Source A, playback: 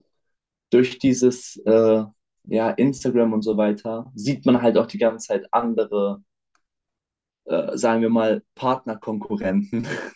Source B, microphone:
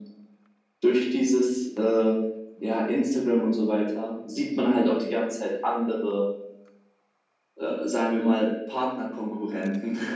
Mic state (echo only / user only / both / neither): echo only